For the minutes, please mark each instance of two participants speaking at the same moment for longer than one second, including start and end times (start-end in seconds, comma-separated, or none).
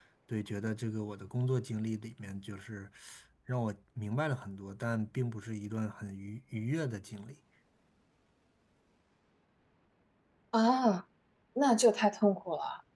none